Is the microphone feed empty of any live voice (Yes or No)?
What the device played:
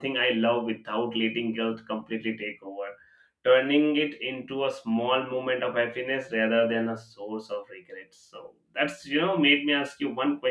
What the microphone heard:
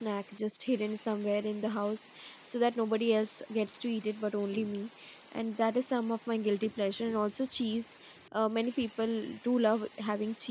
No